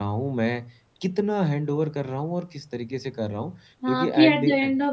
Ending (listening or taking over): taking over